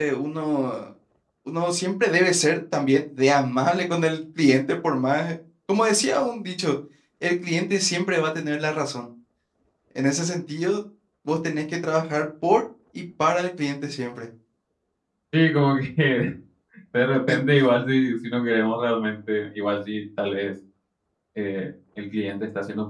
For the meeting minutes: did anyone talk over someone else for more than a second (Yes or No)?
No